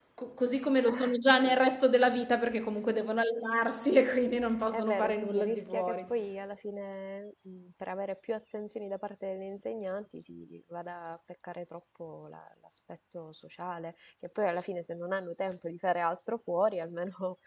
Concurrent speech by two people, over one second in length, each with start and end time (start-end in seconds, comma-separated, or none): 4.7-6.0